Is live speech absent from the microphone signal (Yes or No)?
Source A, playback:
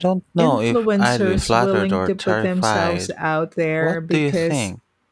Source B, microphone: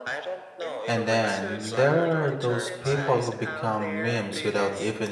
No